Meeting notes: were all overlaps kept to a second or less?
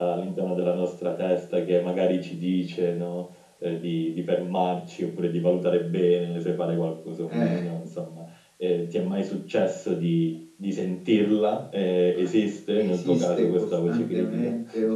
No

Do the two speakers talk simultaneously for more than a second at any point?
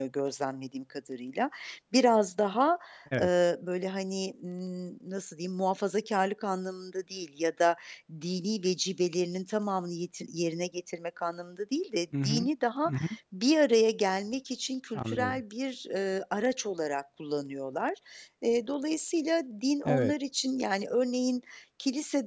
No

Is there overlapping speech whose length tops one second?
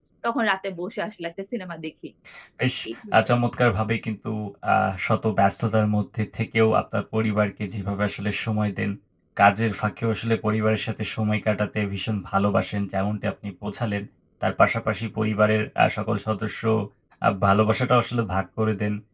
No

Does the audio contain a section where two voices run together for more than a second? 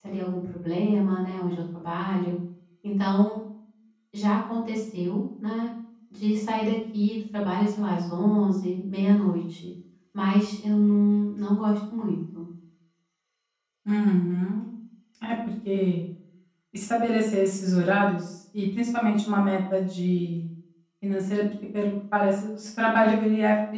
No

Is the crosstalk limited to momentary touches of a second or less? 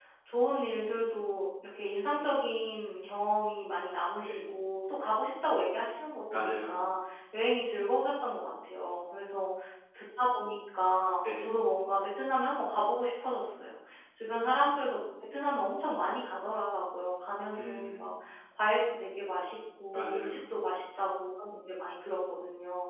Yes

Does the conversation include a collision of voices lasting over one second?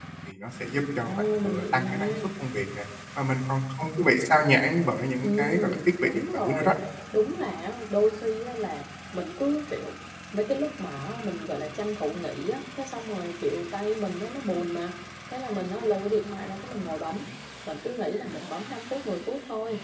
Yes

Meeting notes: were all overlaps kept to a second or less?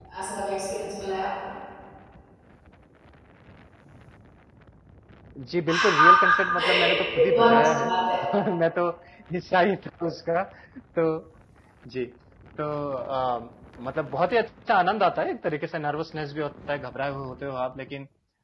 No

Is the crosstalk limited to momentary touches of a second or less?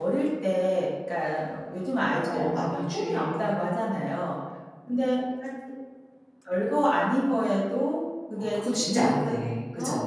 No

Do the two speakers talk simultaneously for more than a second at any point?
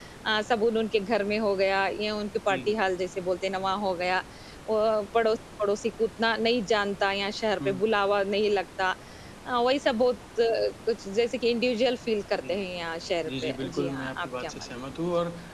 Yes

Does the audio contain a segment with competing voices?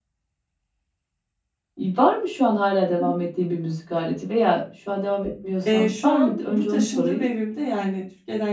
Yes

